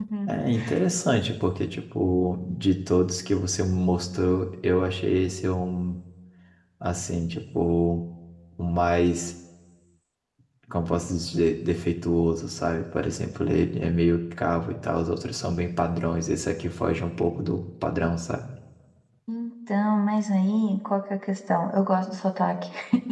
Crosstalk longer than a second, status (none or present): none